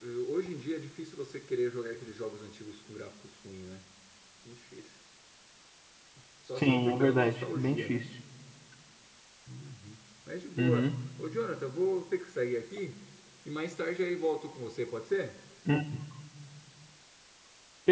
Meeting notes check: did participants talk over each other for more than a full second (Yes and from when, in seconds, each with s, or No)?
Yes, from 6.5 s